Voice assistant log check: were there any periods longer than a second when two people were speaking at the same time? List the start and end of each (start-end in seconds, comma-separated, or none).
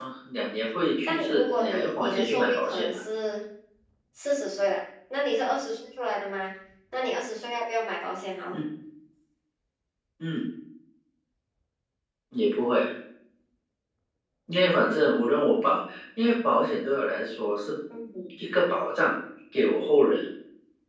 1.1-3.0